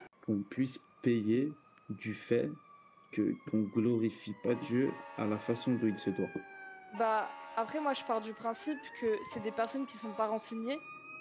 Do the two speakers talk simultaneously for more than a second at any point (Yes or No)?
No